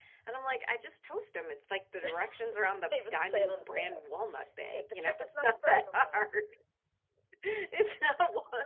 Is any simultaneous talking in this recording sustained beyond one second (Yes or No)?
Yes